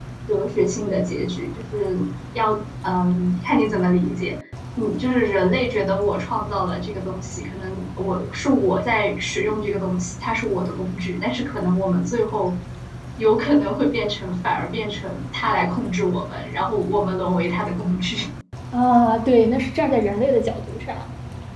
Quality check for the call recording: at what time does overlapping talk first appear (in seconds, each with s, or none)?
none